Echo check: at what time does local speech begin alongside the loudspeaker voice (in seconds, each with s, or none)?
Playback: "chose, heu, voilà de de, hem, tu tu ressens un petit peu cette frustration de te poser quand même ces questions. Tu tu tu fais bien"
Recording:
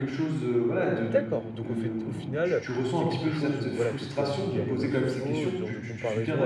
1.1 s